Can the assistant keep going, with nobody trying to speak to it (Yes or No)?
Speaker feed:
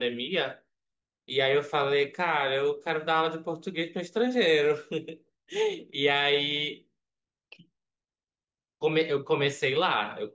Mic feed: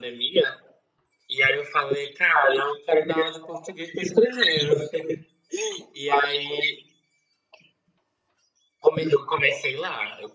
Yes